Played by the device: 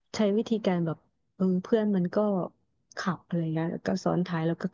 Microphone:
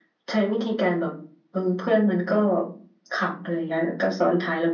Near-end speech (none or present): none